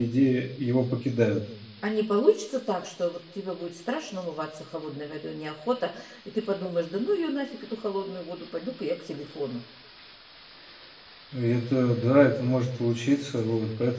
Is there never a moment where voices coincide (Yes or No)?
Yes